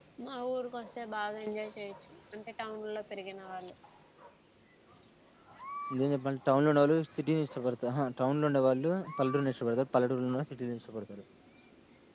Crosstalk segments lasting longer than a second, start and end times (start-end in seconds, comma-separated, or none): none